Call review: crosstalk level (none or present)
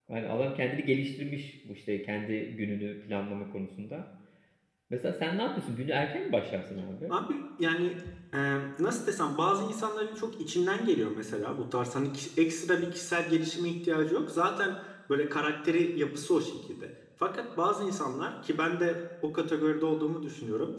none